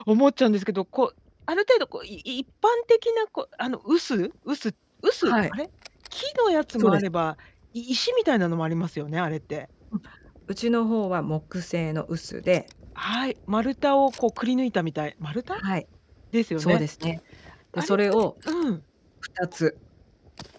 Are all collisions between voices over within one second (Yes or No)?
Yes